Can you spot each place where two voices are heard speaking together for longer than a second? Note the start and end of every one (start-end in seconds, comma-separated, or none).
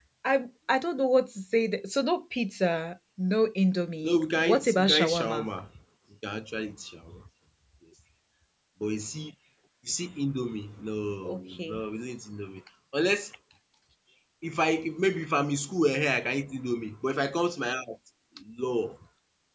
4.0-5.5